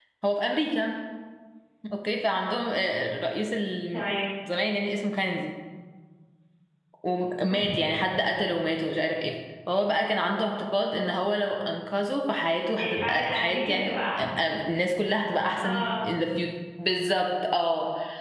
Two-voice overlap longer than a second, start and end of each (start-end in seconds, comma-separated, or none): 12.8-14.3